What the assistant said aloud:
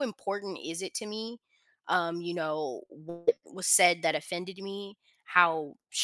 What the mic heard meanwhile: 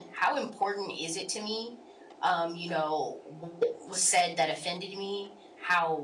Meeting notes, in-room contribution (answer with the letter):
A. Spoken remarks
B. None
B